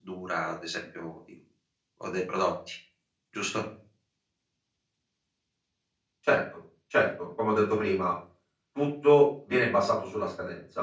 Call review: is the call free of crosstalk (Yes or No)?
Yes